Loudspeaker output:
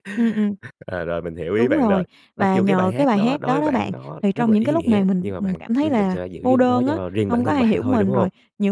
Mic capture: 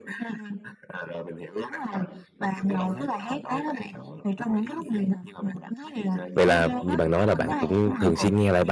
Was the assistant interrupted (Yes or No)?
Yes